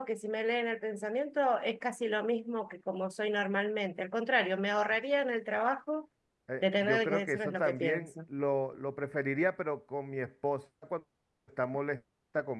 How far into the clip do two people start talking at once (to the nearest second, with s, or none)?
7 s